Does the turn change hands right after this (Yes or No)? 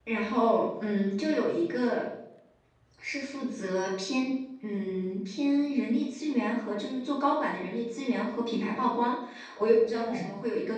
No